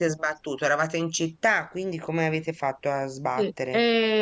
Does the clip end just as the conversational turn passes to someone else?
Yes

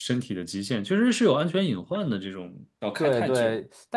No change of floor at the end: No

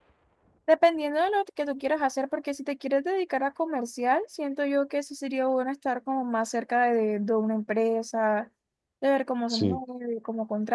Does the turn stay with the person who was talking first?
Yes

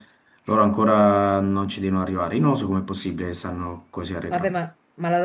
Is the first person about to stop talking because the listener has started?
Yes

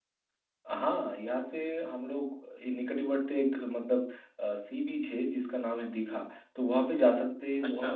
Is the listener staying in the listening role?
Yes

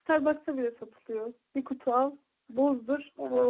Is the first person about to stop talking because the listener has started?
Yes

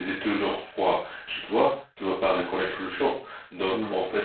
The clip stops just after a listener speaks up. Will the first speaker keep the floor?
Yes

